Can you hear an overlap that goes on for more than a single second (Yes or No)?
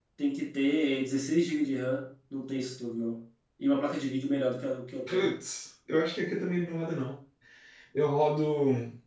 No